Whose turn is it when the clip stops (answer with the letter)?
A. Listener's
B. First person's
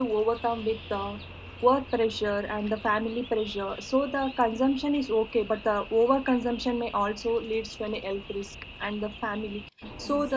B